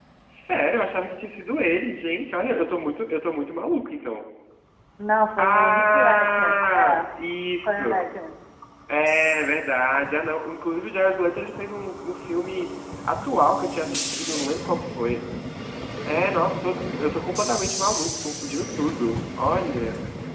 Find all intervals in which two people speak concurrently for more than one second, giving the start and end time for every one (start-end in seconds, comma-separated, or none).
5.4-7.0